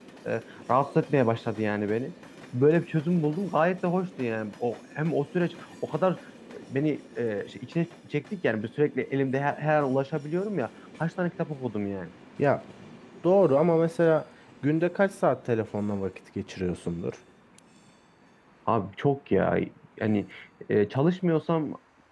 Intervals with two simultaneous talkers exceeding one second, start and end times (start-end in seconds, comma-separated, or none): none